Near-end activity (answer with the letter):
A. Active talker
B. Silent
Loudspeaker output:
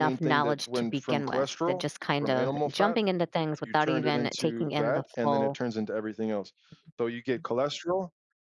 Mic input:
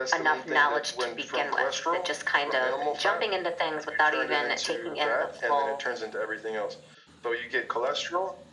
B